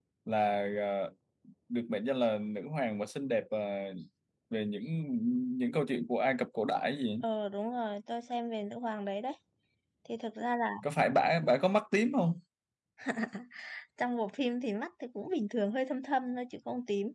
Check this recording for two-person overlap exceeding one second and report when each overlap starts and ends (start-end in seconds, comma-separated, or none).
none